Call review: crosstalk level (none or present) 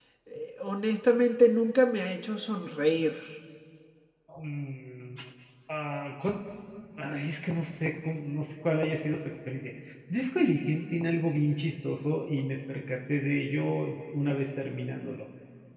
none